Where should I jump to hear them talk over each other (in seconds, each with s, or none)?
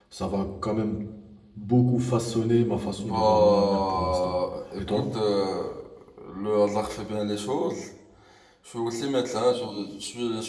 3.0 s